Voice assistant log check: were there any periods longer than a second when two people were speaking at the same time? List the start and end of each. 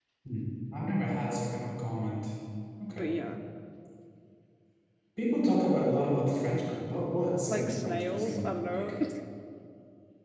7.5-8.9

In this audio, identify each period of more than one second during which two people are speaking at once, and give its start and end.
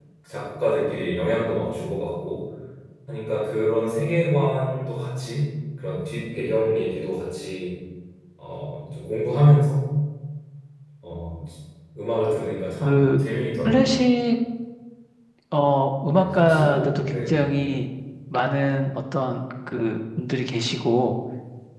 16.1-17.5

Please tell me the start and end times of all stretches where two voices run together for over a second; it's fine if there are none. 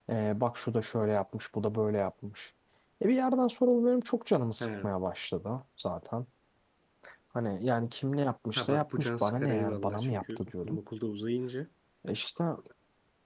8.6-10.8

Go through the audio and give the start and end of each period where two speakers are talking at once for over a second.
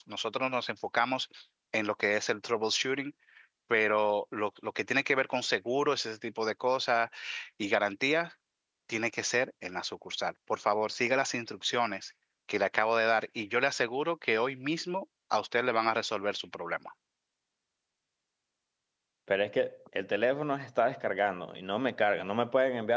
none

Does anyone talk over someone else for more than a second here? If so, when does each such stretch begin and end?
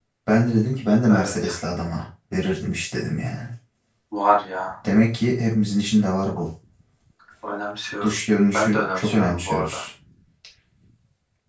8.5-9.8

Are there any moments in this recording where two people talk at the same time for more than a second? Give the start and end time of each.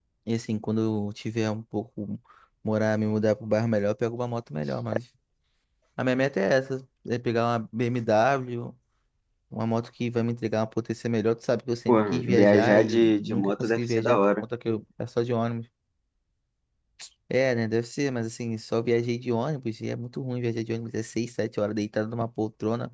11.9-14.4

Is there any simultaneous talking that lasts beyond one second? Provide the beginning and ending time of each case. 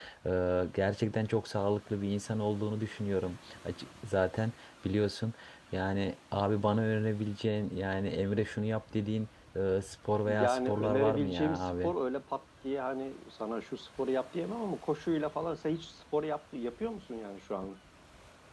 10.2-11.9

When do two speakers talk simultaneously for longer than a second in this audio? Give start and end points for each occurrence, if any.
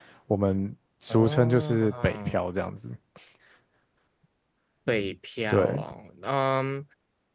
1.1-2.4

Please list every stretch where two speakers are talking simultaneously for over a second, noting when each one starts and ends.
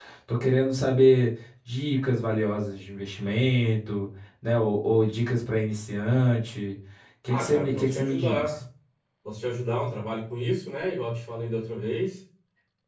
7.3-8.6

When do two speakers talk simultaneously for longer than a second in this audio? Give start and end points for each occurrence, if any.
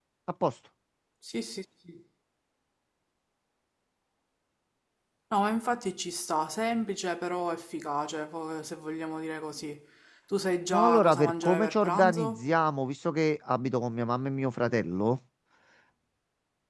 10.7-12.4

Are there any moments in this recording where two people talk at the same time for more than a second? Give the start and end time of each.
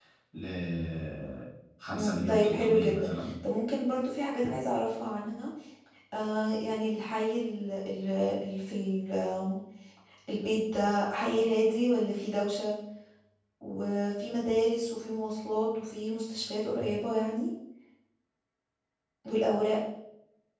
1.9-3.3

